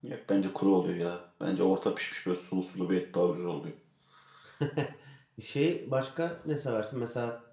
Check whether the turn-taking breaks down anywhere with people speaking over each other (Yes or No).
No